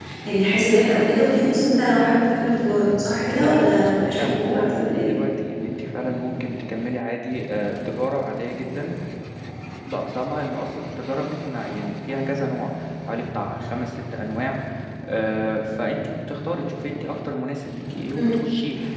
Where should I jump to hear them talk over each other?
3.3 s

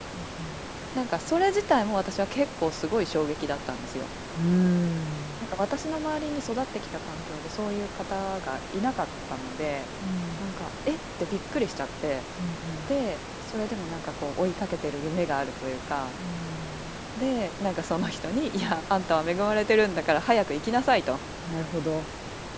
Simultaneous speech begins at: none

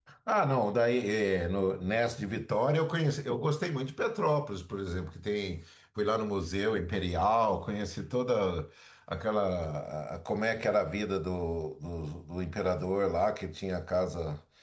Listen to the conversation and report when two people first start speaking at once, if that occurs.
none

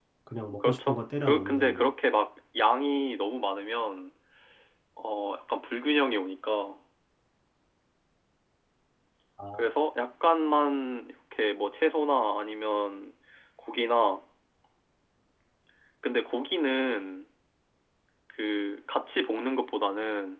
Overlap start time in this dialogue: 0.6 s

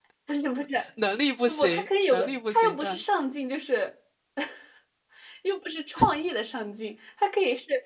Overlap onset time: 1.5 s

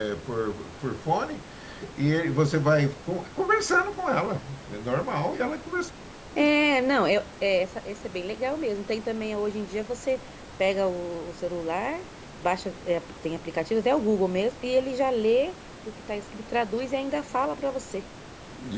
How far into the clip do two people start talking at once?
none

